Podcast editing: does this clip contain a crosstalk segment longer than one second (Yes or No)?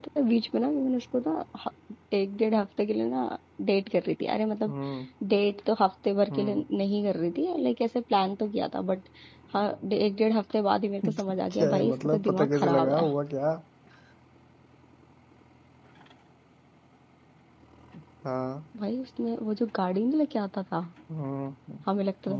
Yes